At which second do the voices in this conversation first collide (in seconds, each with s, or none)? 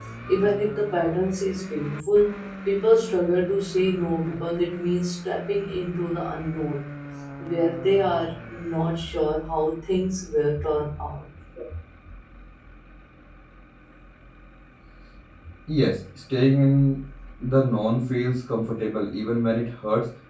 none